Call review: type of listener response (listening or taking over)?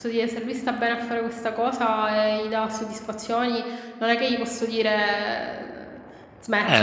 taking over